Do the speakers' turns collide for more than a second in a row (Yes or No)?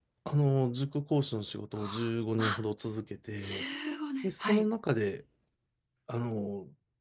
No